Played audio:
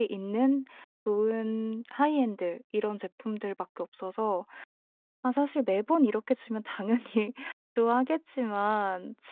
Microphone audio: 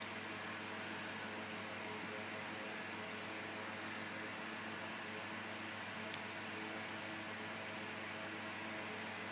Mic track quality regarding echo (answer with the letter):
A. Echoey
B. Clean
B